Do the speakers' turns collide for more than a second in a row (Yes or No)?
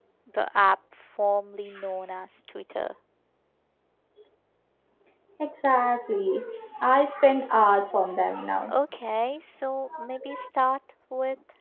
No